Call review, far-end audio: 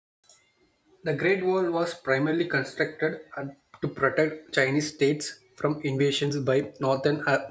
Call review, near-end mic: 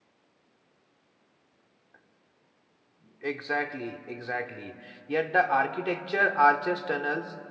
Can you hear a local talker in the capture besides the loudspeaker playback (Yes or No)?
Yes